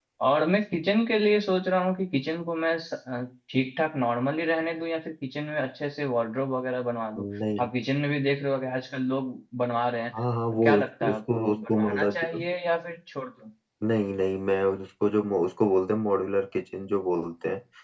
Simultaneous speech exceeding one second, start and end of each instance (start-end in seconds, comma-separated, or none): 11.1-12.4